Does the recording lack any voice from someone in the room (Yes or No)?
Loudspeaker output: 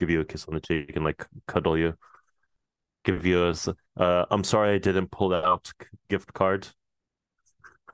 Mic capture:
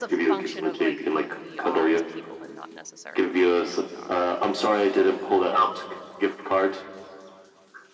No